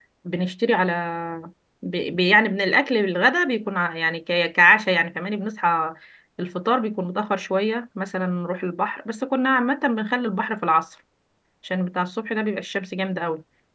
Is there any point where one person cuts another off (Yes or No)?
No